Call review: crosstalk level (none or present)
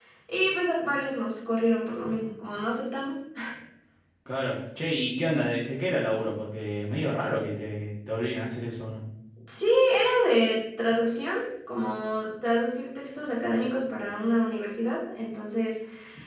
none